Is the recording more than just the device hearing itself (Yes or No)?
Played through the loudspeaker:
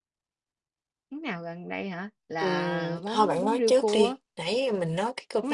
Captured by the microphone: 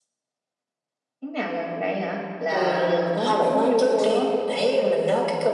No